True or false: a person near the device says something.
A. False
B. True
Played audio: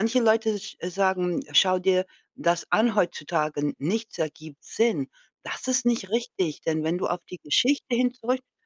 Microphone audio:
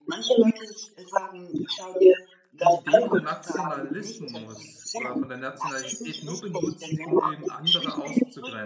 B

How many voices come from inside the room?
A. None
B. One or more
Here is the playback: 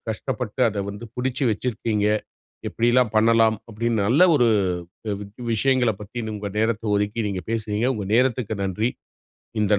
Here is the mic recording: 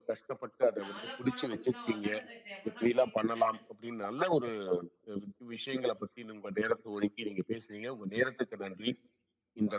B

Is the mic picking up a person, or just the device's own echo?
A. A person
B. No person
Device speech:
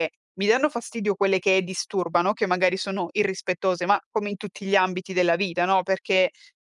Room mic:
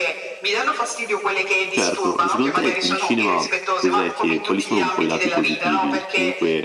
A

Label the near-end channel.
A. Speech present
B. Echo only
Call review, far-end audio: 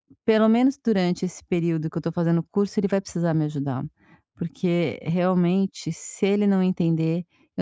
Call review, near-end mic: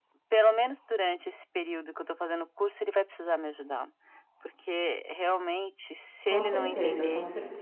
A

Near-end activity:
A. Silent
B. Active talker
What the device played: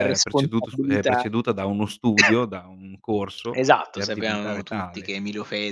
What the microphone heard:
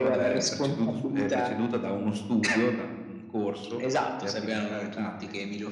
A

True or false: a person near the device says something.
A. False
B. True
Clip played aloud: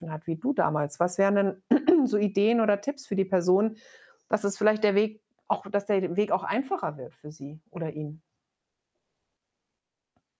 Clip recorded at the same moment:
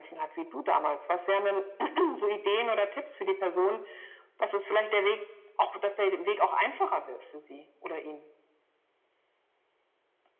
A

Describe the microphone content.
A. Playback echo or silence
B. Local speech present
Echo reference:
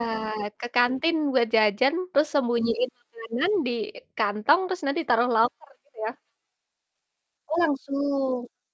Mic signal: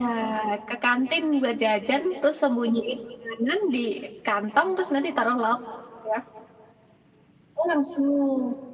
A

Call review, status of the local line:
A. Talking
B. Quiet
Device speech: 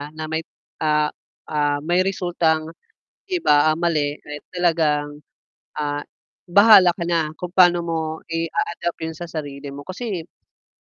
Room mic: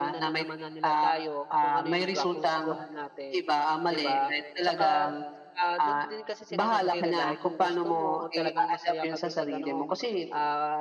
A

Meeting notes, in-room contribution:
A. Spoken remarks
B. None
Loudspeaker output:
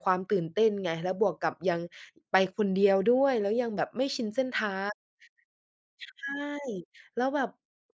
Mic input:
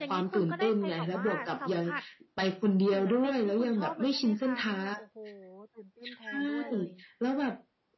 A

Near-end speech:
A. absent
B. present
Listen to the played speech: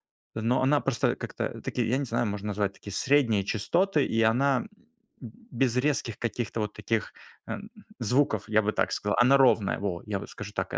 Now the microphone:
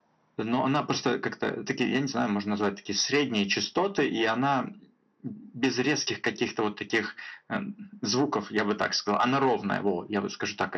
A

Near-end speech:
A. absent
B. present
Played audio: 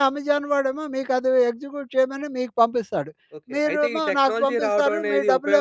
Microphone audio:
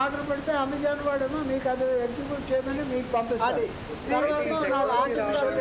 B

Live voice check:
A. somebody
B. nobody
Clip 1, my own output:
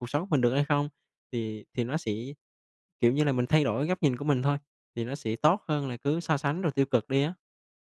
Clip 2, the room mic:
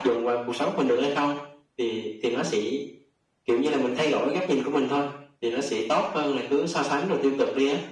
B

